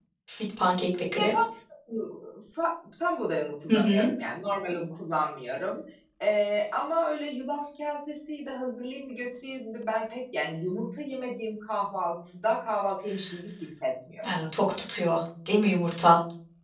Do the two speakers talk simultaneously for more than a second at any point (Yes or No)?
No